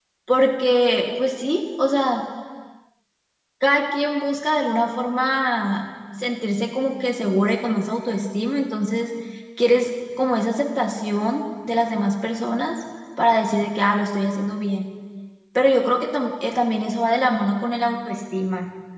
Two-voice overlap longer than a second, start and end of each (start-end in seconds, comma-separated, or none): none